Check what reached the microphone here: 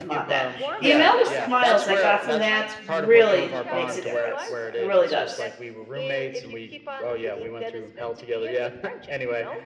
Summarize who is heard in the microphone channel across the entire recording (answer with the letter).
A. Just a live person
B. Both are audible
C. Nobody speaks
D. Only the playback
B